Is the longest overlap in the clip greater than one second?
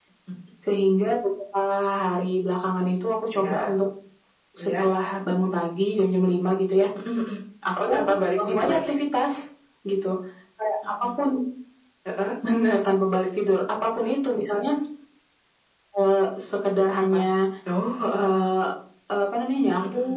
No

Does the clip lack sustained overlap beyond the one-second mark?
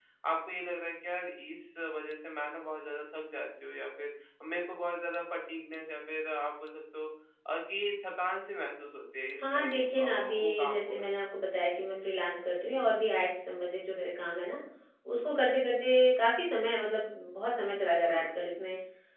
No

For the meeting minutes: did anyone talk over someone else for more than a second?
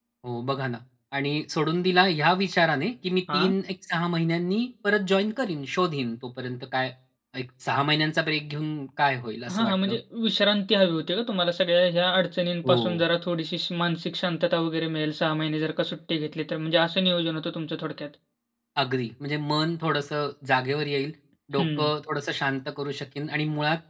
No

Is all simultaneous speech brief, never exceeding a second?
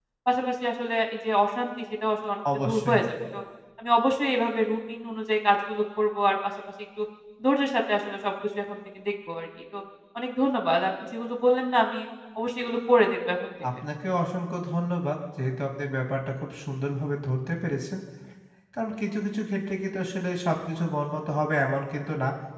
Yes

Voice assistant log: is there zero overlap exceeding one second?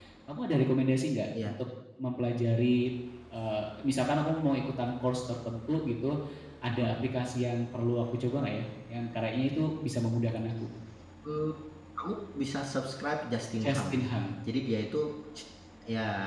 Yes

